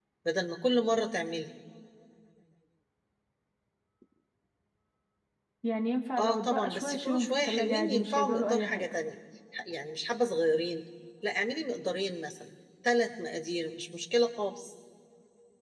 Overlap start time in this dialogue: 6.2 s

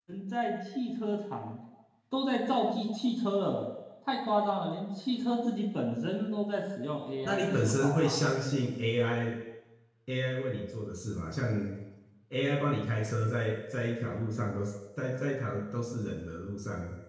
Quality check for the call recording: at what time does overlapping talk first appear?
7.2 s

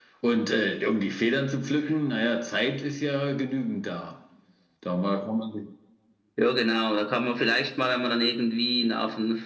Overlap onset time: none

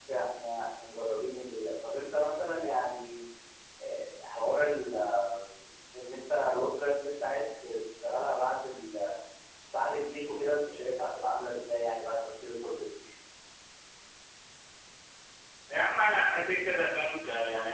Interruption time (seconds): none

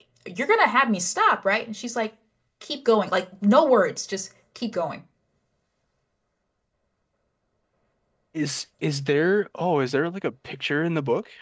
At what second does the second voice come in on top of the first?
none

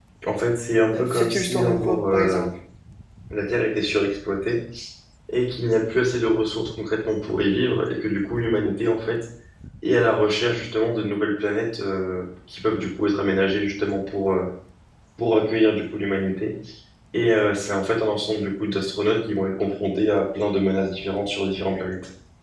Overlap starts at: 0.9 s

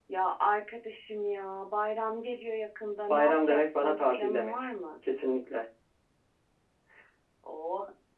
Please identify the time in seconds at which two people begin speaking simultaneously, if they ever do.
3.1 s

